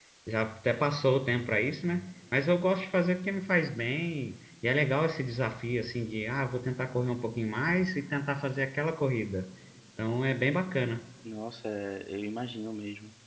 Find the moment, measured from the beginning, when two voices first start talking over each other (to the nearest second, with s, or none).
none